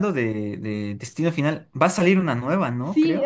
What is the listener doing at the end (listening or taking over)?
taking over